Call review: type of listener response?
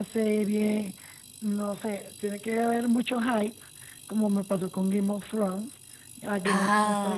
listening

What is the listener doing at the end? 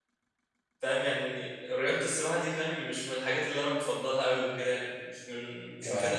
listening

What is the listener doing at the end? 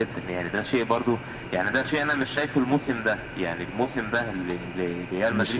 listening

